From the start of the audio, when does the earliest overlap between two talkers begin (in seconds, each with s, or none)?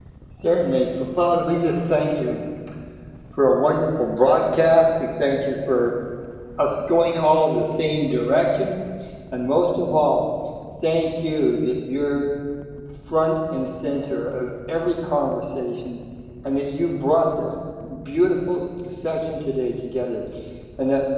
none